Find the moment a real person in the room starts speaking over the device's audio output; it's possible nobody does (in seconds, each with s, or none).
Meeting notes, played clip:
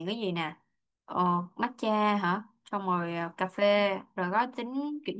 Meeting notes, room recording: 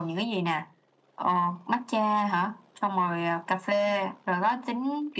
none